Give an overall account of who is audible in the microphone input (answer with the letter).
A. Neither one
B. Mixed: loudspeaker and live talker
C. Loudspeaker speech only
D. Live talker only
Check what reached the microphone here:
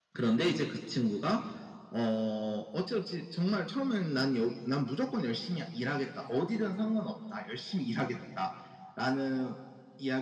C